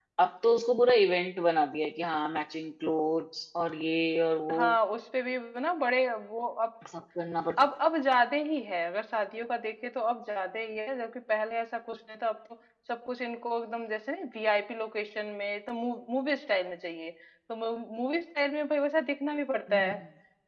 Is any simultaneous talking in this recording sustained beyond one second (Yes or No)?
No